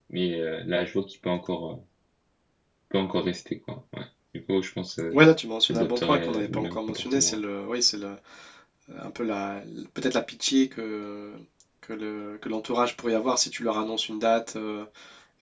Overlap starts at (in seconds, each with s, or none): 5.7 s